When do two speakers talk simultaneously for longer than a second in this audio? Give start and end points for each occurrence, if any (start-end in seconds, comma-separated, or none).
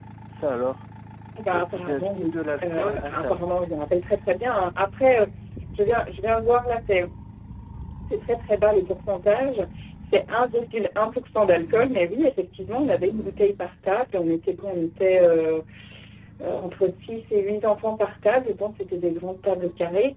1.5-3.5